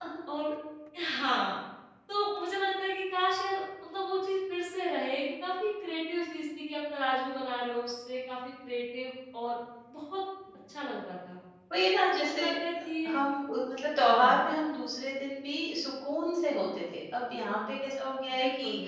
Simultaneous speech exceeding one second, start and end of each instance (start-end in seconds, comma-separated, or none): none